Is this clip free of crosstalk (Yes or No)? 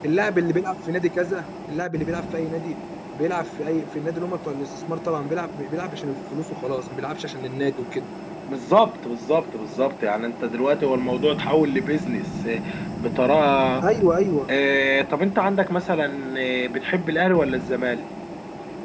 Yes